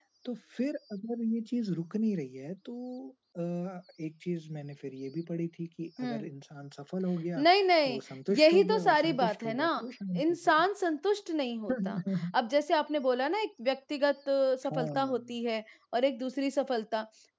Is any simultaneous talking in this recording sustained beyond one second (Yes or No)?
Yes